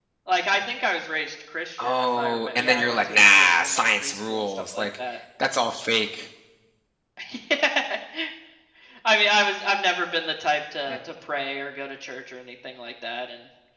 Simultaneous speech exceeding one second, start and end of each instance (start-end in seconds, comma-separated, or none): 1.8-4.9